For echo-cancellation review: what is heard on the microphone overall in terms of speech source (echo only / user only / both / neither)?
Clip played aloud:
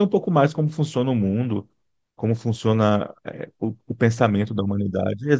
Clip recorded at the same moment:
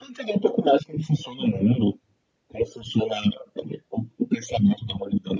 echo only